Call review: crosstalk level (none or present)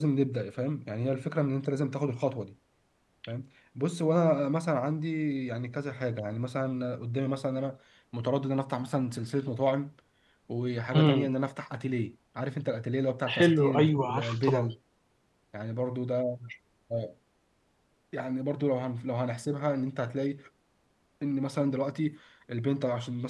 present